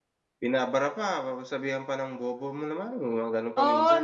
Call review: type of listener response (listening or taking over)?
taking over